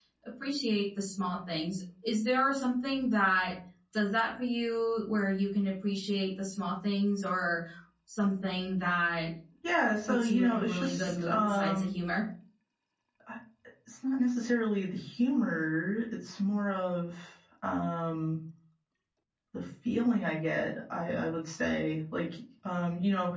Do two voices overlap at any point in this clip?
Yes, from 10.1 s

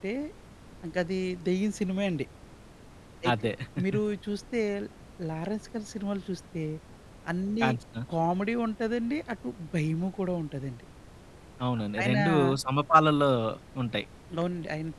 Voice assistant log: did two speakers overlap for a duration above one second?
No

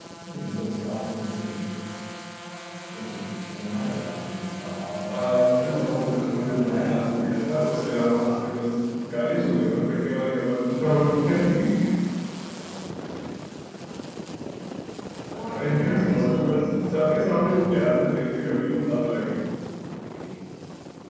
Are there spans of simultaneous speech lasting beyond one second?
Yes, from 5.1 s

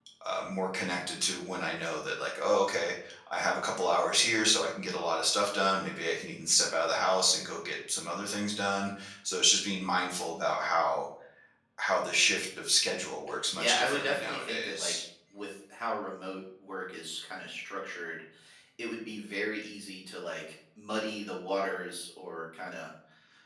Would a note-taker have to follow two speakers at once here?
Yes, from 13.6 s

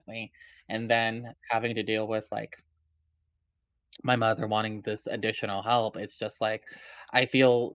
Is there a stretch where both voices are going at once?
No

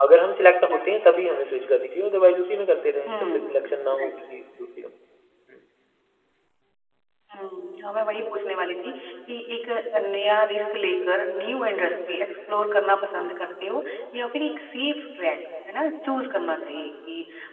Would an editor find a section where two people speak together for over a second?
No

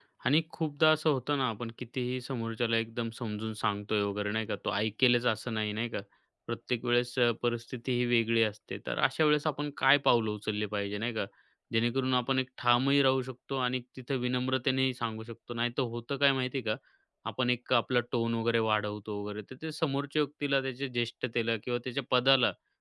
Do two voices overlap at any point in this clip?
No

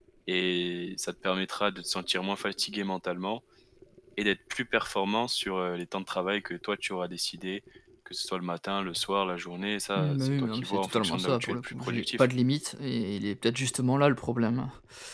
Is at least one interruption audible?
Yes, from 10.0 s

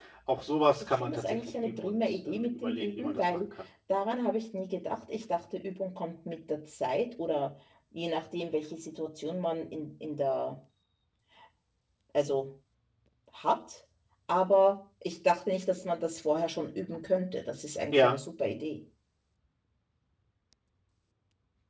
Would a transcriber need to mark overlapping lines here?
Yes, from 0.8 s

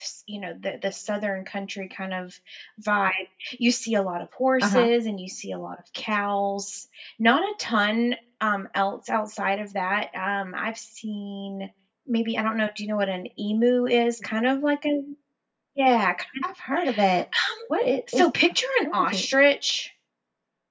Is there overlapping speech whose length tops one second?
No

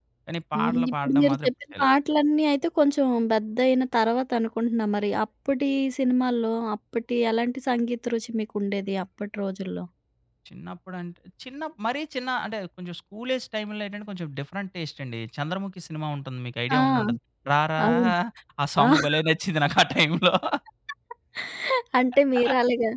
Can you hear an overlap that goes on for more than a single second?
Yes, from 0.6 s

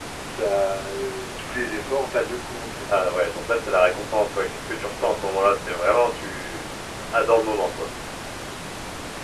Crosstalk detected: No

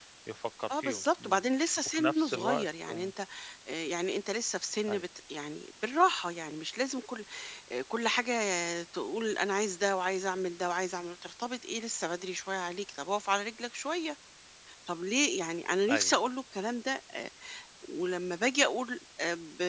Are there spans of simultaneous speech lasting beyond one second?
Yes, from 0.7 s

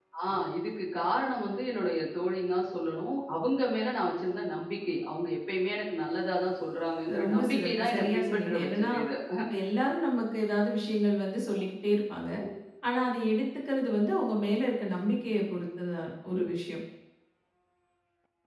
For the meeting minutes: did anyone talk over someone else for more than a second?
Yes, from 7.1 s

